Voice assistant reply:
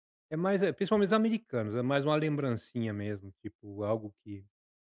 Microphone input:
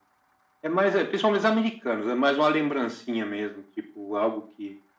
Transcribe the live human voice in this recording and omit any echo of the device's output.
none

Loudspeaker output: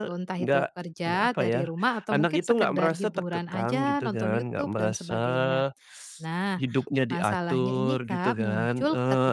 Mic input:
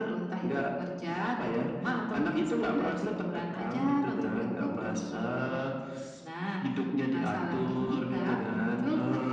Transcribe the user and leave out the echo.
Iya.

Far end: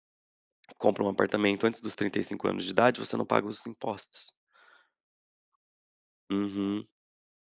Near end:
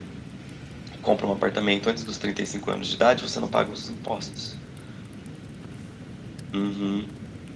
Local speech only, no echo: none

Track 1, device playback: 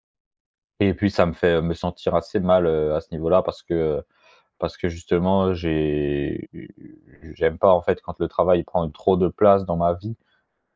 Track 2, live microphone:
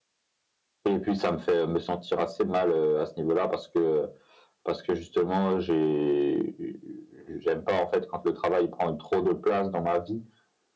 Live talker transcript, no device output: none

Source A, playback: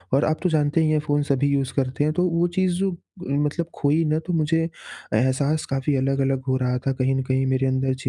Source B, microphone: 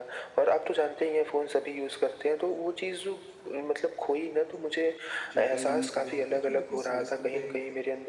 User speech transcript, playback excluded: चिंता करने से क्या होता है कि आपके स्वास्थ्य पे

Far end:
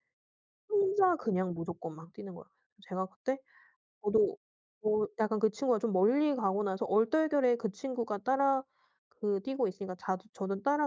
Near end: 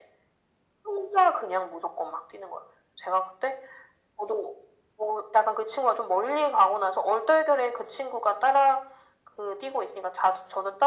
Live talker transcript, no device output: none

